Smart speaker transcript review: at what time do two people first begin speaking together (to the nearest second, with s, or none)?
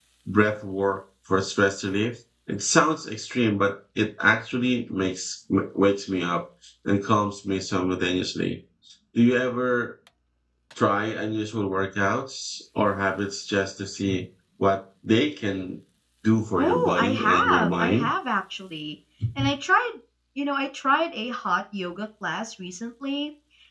17 s